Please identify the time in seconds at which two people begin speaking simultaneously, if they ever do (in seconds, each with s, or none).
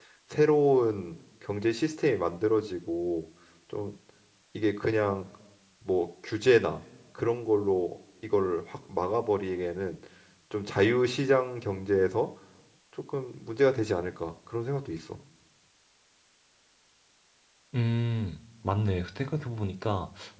none